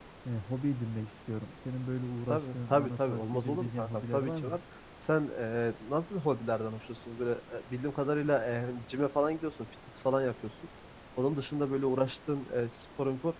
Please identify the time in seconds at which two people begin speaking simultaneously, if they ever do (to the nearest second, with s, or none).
2 s